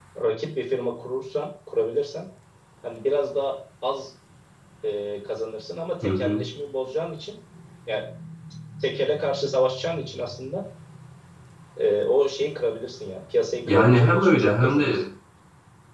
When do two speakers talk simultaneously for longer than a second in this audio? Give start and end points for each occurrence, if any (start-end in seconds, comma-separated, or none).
13.7-15.0